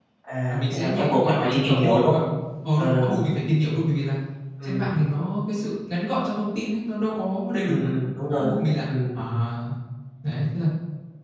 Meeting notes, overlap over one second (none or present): present